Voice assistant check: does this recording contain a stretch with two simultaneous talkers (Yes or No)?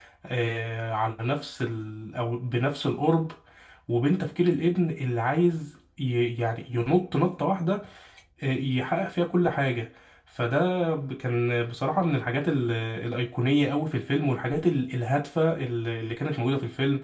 No